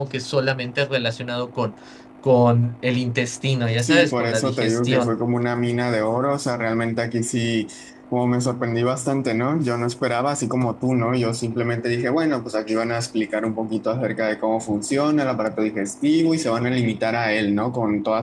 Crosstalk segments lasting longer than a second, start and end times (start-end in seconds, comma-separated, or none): 3.8-5.2